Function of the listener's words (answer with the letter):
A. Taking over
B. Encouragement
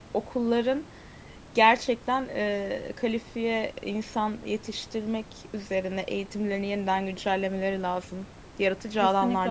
A